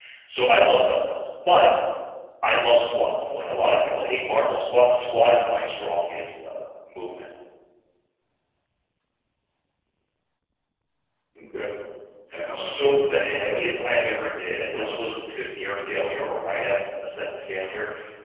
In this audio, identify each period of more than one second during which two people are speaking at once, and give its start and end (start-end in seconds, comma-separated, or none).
12.5-13.9